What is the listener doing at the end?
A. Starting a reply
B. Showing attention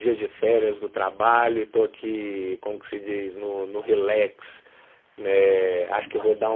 B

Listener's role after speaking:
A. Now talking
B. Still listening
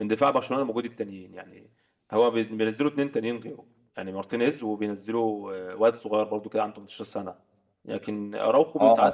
B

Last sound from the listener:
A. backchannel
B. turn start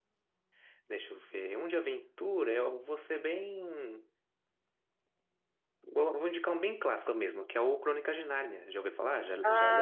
B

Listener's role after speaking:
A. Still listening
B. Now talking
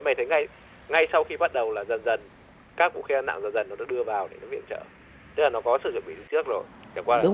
B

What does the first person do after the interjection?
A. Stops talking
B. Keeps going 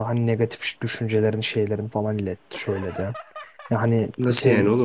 A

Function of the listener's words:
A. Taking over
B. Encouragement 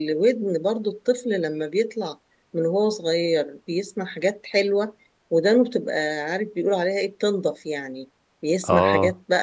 B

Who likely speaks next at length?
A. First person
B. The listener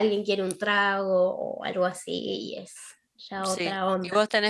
B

